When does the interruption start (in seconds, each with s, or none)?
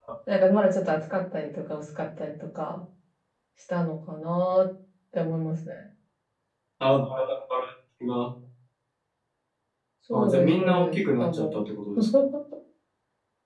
10.1 s